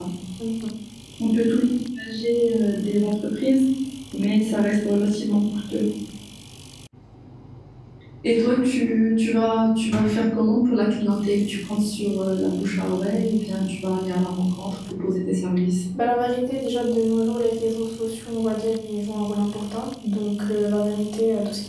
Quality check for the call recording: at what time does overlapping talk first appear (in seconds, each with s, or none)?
none